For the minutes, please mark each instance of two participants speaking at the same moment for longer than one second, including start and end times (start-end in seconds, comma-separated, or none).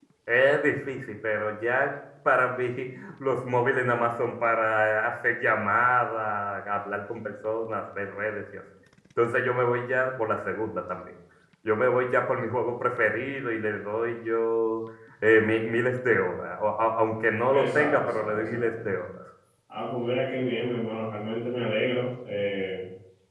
17.5-18.9